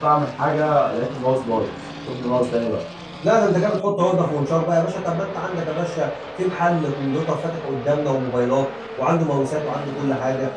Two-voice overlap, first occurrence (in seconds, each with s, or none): none